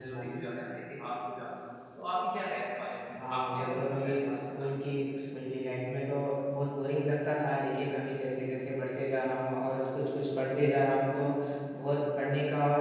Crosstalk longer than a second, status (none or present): present